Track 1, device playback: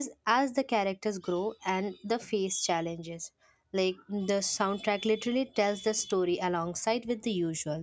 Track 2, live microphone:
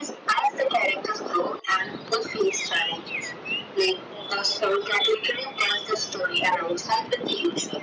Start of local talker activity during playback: none

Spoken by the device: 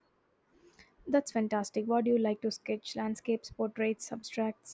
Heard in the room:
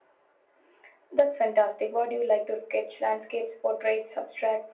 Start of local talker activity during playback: none

